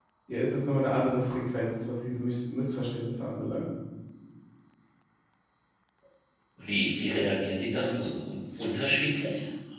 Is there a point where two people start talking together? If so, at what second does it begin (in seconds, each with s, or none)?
none